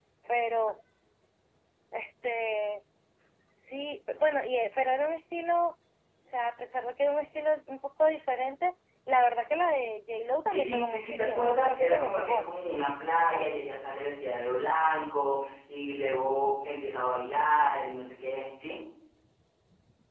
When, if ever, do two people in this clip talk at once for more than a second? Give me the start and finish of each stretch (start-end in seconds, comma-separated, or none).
10.5-12.4